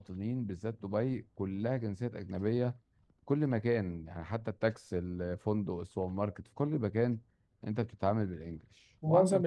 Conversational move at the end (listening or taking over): taking over